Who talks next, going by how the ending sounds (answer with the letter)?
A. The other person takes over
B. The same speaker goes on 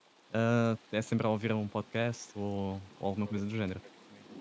A